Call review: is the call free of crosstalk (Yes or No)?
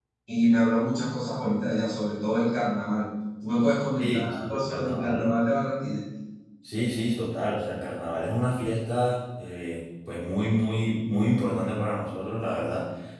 No